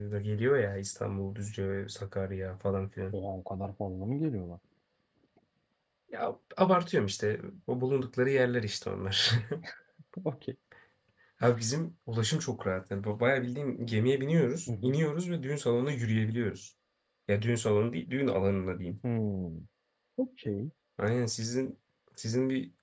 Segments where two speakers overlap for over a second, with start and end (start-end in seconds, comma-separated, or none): none